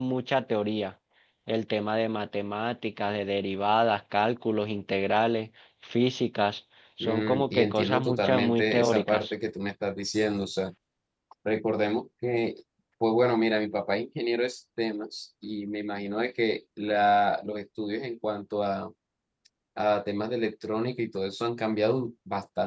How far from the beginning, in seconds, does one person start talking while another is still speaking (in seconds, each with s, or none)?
7.0 s